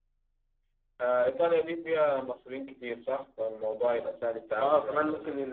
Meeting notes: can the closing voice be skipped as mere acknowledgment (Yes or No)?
No